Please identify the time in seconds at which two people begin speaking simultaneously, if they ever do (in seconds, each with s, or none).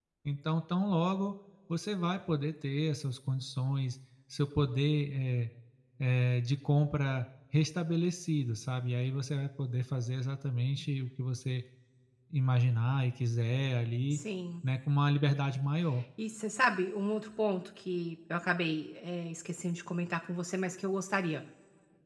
none